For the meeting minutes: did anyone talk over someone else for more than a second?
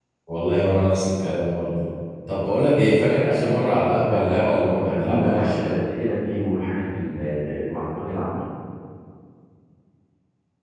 Yes, from 4.0 s

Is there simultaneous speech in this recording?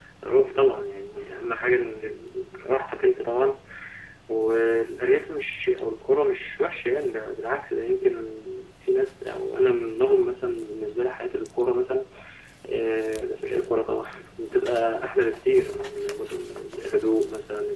No

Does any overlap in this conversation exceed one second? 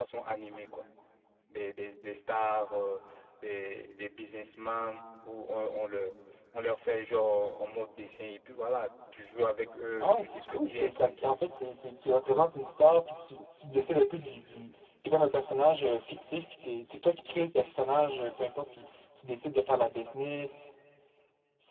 Yes, from 10.0 s

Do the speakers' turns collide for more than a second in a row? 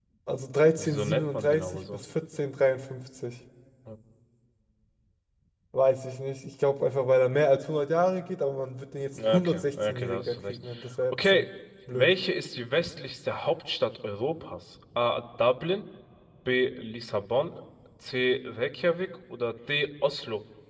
Yes, from 0.8 s

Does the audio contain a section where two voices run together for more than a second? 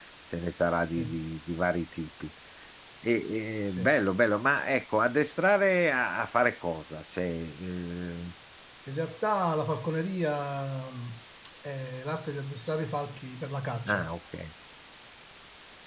No

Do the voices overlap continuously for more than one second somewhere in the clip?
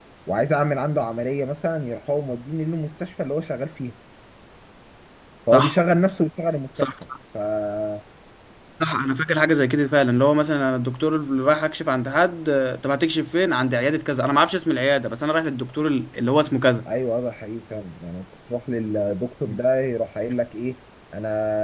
No

